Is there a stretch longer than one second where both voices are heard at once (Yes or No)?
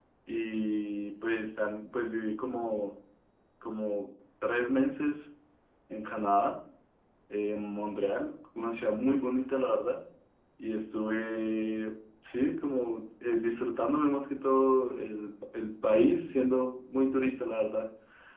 No